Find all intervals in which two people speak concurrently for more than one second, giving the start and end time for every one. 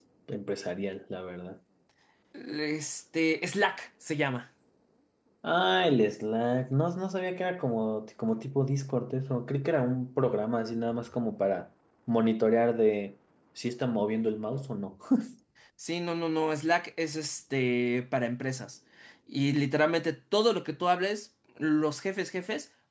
none

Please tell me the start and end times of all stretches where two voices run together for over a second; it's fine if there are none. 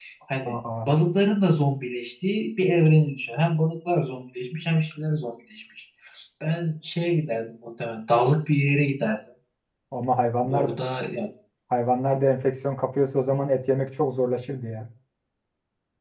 none

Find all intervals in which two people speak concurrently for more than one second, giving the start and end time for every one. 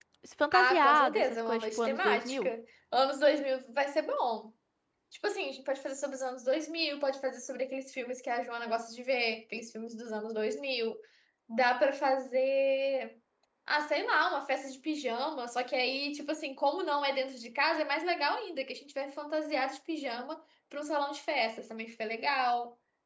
0.5-2.5

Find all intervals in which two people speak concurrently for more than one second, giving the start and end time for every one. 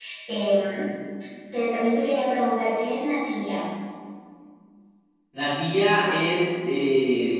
none

